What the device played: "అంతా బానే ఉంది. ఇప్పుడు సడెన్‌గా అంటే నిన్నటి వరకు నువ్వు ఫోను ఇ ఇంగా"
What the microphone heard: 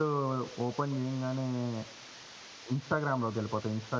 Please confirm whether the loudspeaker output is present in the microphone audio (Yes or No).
No